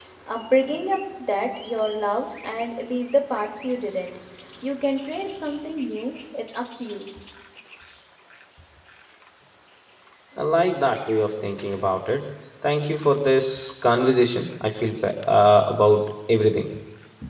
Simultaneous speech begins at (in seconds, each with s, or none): none